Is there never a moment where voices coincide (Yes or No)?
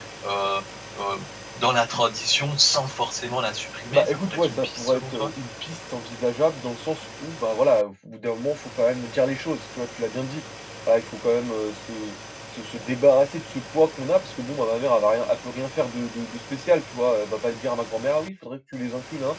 No